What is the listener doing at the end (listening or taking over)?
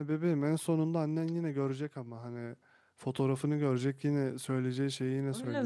taking over